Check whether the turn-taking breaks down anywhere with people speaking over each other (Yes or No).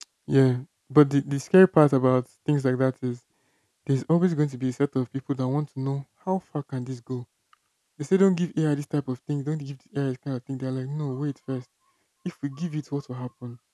No